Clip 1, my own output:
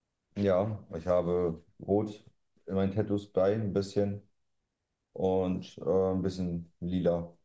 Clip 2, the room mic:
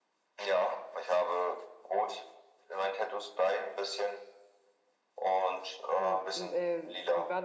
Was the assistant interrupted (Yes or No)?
Yes